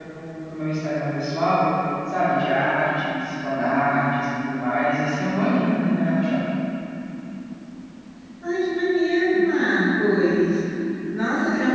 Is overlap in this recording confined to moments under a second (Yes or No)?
Yes